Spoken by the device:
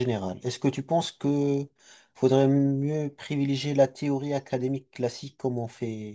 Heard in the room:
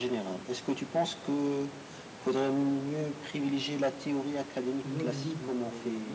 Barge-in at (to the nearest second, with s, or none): 5 s